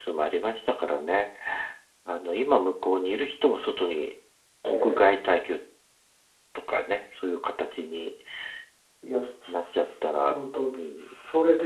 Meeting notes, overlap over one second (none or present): none